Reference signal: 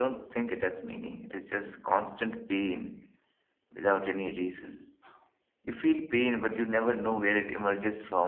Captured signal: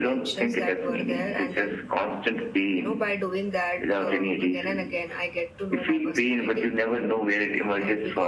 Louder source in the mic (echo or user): echo